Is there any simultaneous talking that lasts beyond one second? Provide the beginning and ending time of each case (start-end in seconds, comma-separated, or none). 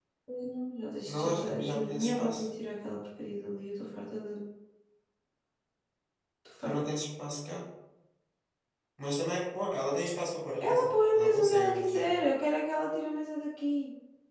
1.1-2.5, 10.6-12.1